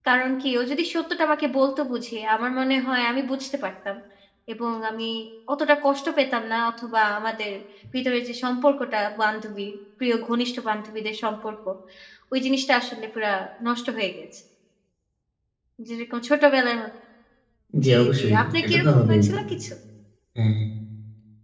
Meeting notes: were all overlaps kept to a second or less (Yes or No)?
No